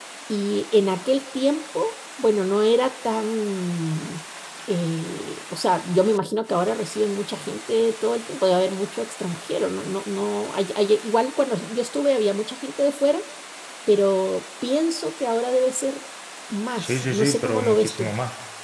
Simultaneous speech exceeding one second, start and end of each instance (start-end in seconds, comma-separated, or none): 16.8-18.1